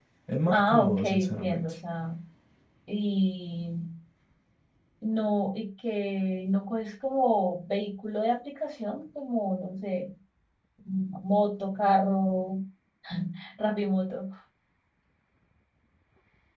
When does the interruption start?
0.5 s

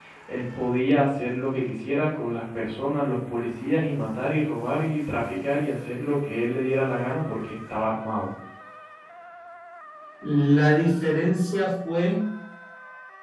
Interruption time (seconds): none

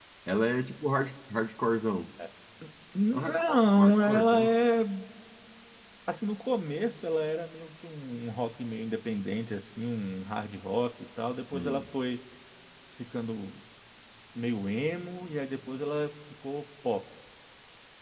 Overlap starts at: 3.1 s

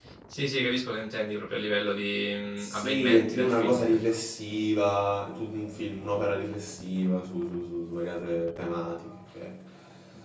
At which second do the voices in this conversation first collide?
2.6 s

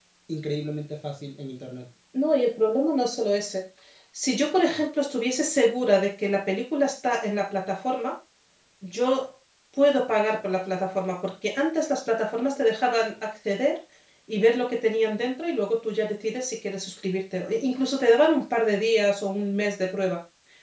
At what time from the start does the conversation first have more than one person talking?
none

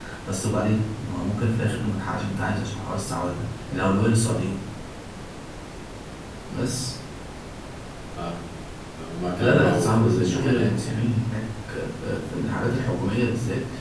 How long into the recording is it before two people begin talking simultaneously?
9.4 s

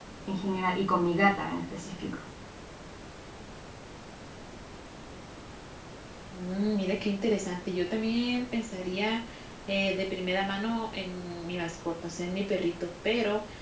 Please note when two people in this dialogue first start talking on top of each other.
none

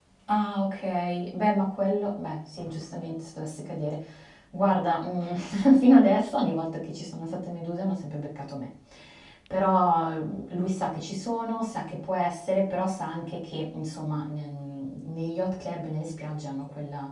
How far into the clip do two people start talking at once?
none

